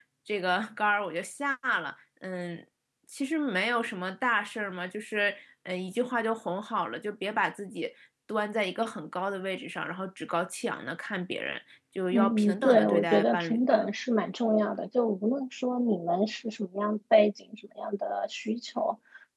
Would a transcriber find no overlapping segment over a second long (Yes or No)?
No